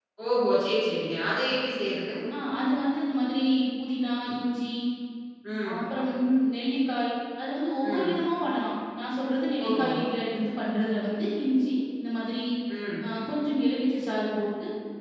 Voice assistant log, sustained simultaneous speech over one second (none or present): none